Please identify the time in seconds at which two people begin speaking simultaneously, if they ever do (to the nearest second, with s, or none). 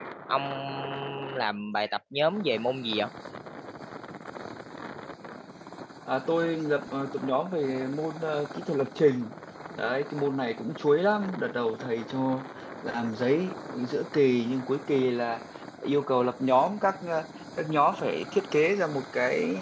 none